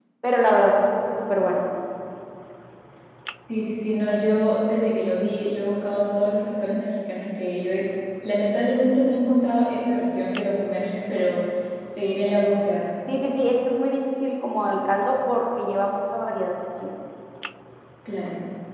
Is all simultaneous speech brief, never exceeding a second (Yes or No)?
Yes